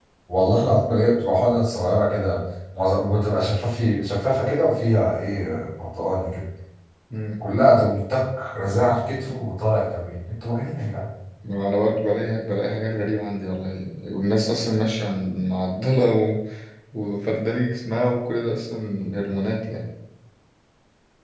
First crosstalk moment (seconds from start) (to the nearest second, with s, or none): none